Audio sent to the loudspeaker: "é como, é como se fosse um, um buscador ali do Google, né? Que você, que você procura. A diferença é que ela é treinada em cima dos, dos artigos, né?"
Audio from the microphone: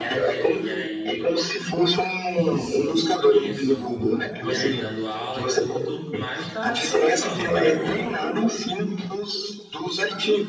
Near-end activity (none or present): present